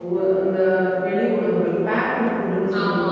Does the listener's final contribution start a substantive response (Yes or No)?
No